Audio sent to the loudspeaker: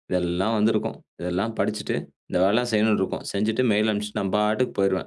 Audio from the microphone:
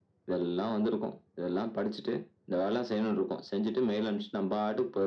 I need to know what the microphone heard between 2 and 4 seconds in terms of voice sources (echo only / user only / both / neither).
echo only